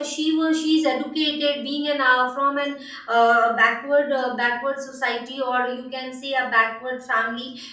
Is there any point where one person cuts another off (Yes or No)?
No